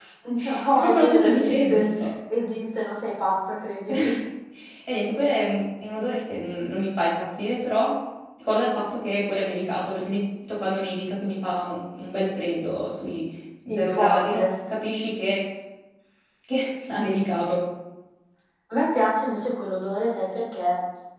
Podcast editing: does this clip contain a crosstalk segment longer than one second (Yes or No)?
Yes